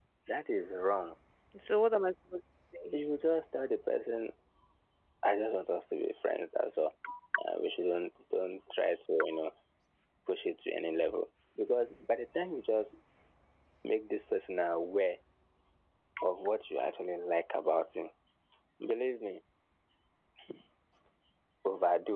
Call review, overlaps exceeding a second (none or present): none